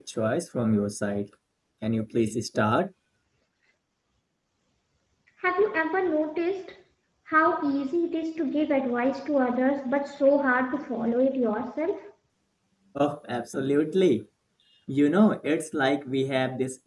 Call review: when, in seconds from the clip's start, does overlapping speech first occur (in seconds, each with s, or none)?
none